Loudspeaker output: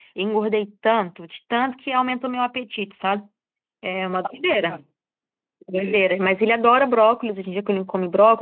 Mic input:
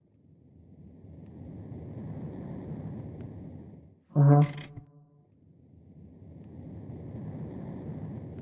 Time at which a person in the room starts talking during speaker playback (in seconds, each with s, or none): 4.1 s